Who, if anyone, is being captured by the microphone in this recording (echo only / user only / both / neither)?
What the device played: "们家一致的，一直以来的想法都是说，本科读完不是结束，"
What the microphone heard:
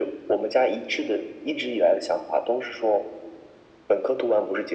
echo only